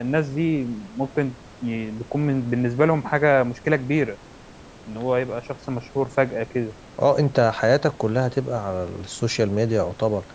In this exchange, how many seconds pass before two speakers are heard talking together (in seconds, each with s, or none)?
none